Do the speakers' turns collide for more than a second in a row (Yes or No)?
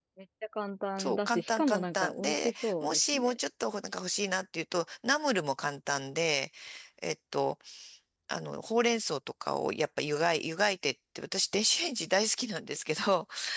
Yes